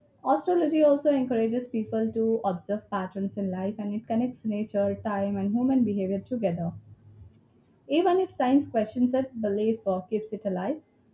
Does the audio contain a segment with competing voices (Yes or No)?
No